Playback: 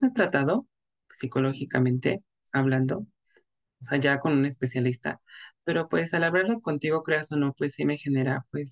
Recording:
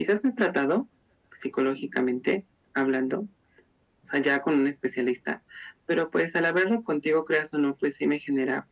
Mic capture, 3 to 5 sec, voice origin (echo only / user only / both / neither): echo only